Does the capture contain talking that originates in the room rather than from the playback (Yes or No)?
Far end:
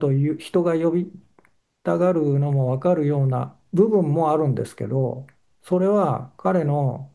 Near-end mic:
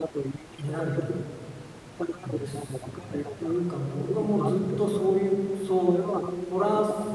Yes